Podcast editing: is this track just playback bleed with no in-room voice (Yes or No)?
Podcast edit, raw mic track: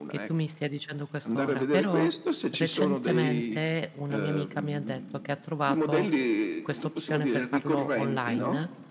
No